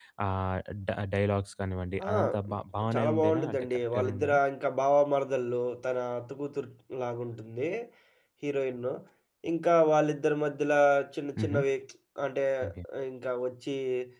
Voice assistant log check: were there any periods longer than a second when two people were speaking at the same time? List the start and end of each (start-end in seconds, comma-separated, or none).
2.9-4.4